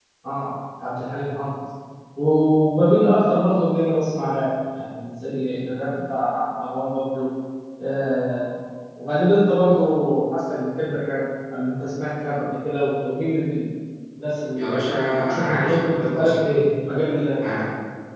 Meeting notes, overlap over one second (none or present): present